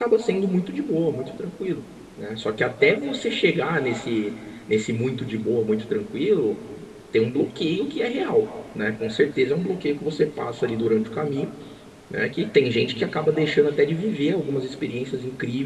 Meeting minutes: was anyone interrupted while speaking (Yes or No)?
No